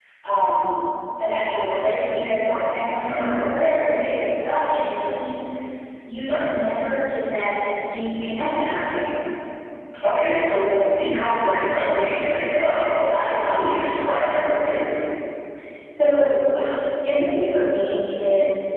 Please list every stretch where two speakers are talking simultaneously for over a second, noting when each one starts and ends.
none

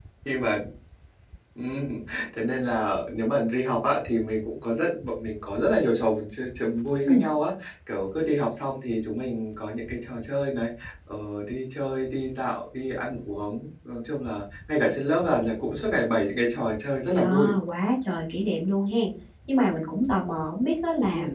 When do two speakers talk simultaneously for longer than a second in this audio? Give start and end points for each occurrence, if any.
none

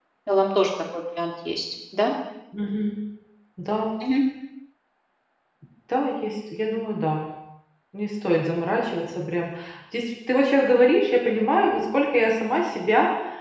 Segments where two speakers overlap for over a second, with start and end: none

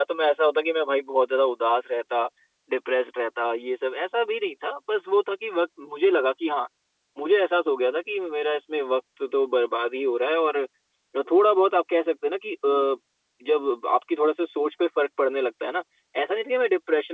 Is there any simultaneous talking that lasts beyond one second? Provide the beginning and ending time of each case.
none

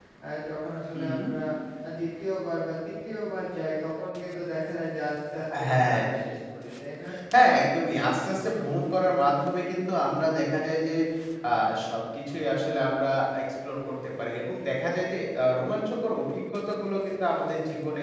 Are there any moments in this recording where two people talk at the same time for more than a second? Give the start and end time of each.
none

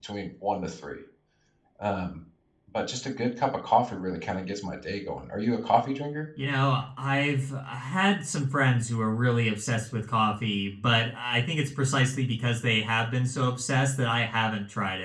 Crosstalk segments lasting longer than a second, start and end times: none

